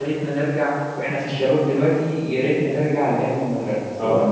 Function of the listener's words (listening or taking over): listening